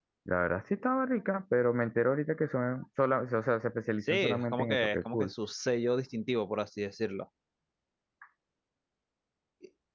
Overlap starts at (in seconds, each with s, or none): 4.0 s